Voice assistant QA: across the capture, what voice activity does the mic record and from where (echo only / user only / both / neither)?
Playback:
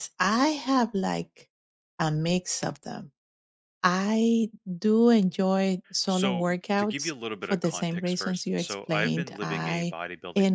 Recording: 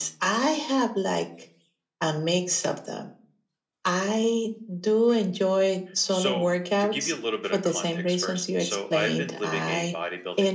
echo only